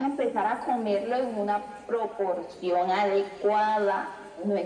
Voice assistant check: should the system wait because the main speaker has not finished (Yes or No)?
Yes